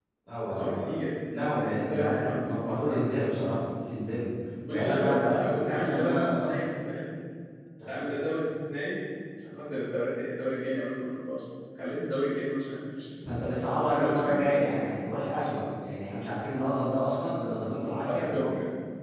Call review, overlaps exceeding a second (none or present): present